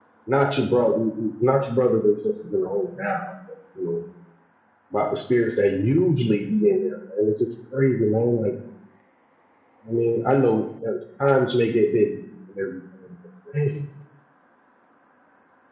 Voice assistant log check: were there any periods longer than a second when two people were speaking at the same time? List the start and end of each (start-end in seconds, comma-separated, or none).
none